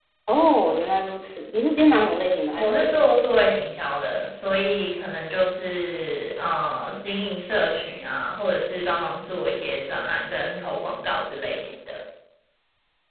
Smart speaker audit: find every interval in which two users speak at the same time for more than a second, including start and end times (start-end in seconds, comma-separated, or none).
none